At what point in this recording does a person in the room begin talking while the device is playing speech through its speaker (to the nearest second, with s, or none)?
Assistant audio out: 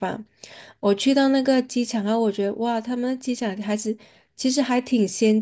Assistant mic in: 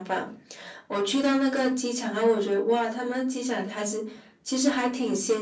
none